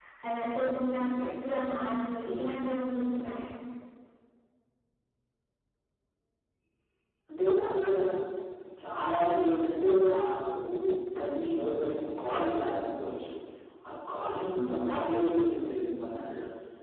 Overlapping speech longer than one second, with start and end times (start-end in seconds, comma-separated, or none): none